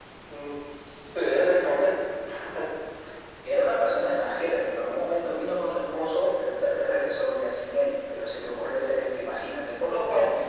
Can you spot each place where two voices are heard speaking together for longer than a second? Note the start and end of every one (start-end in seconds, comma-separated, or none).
none